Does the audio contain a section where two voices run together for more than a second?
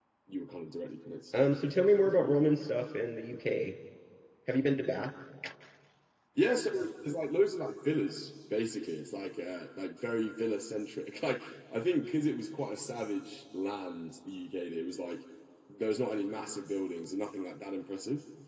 No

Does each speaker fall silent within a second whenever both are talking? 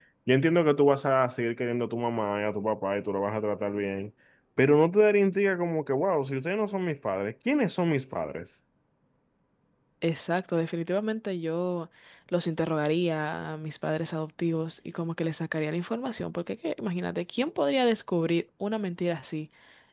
Yes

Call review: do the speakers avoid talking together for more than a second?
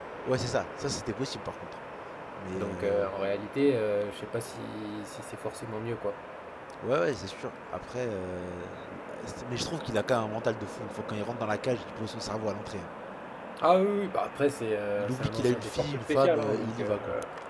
No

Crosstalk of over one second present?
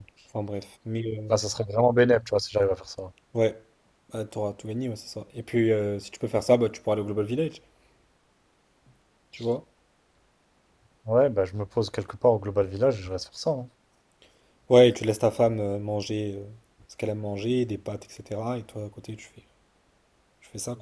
No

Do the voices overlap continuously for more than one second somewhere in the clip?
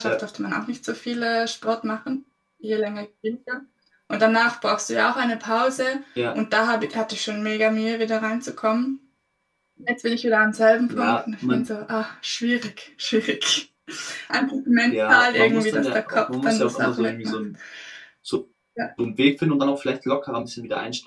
Yes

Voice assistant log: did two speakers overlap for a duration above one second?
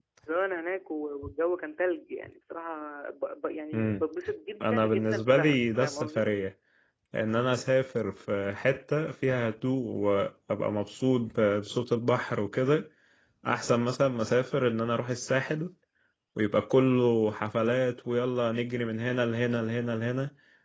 Yes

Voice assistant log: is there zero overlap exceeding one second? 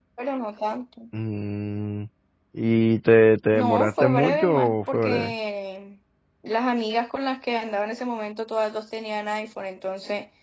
No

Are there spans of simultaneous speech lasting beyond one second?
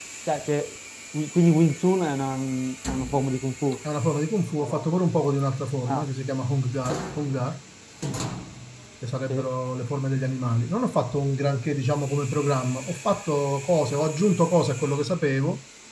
No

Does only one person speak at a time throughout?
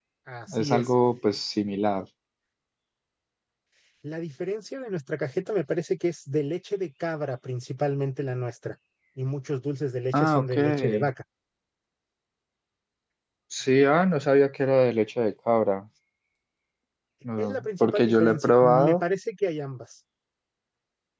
No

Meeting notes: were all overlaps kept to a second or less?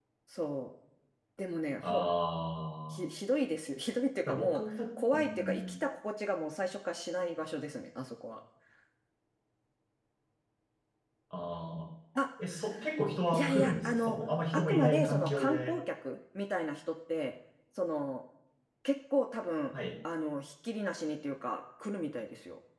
No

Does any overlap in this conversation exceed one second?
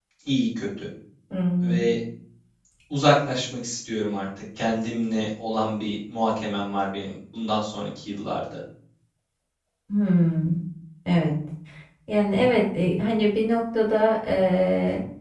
No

